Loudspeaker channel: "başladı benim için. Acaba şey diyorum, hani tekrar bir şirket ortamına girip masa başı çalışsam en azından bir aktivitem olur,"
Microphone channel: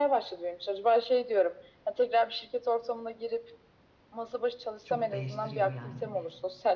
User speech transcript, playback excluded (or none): çok değiştiriyor yani.